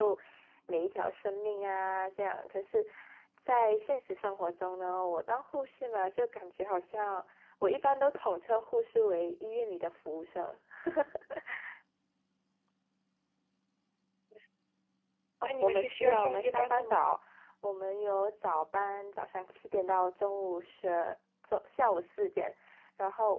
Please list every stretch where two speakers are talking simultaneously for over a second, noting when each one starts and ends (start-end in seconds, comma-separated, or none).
15.4-17.1